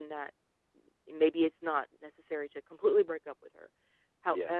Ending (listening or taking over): listening